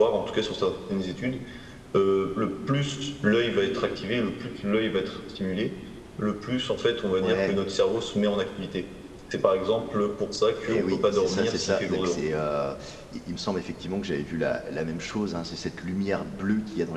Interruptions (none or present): present